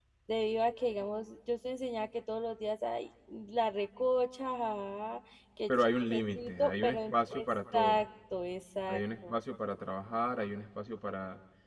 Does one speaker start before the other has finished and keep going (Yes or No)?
Yes